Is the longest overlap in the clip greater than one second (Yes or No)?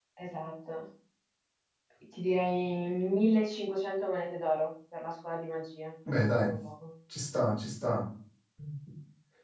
No